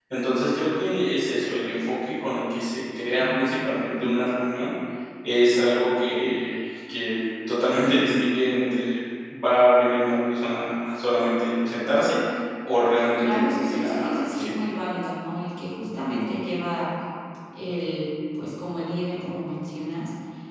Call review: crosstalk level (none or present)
present